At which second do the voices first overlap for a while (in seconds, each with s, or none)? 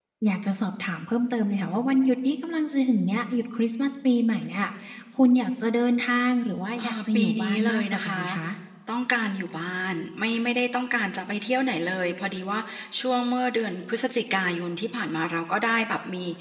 6.8 s